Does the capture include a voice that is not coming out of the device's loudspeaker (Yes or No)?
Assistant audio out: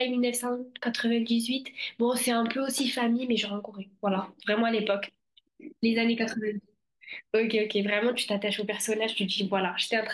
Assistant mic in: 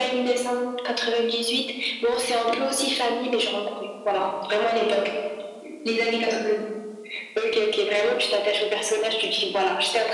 No